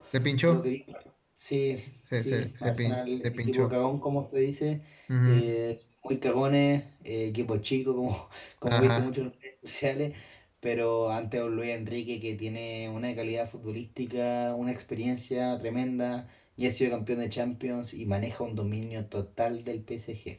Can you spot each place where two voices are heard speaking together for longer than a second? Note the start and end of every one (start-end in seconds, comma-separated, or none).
2.2-3.8